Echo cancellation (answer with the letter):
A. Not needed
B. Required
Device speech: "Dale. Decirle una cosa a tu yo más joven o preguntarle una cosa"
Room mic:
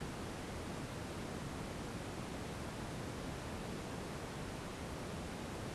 A